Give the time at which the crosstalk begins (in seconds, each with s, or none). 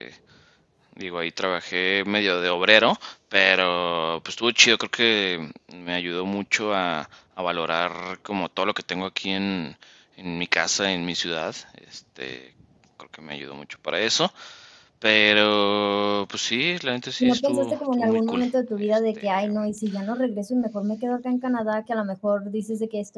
17.2 s